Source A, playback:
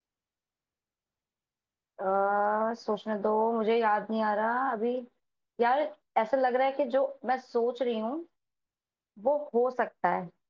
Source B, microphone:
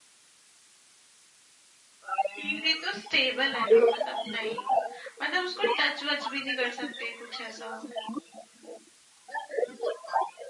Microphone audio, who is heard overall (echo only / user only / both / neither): both